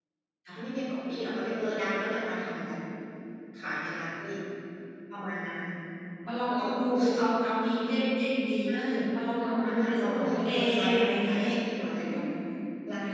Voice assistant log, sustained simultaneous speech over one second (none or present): present